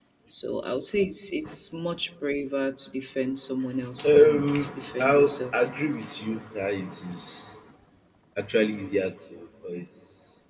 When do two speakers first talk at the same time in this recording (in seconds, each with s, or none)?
4.0 s